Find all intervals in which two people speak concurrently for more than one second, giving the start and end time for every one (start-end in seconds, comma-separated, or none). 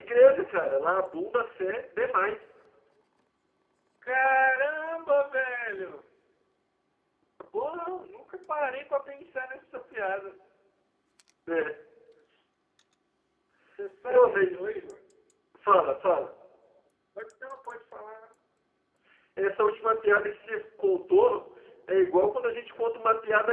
none